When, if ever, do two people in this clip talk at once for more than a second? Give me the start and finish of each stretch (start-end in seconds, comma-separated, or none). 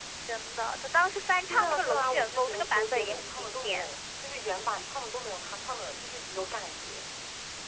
1.5-3.9